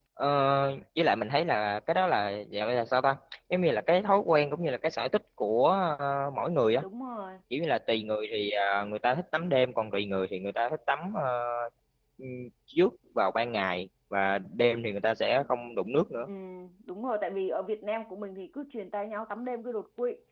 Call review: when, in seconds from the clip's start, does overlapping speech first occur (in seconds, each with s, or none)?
none